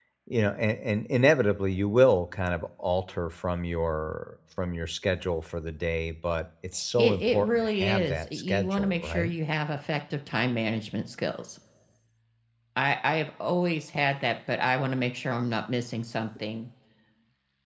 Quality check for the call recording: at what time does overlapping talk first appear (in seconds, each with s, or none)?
7.0 s